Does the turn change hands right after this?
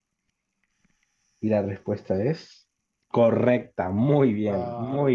Yes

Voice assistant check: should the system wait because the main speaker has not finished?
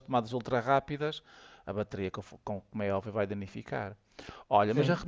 Yes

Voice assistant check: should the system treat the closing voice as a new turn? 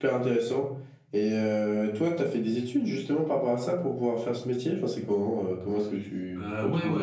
Yes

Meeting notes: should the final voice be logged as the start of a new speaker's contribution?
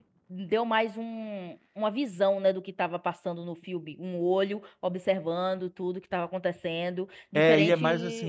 Yes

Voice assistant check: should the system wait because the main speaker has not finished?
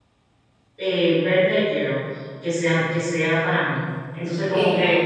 No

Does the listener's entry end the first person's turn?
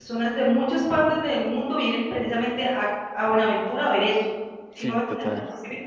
No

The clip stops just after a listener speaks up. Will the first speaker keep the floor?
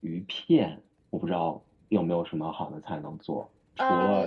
Yes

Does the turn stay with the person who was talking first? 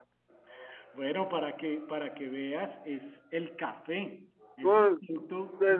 No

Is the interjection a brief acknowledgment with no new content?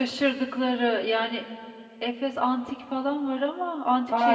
No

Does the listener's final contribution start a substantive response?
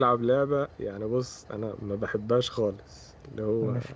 No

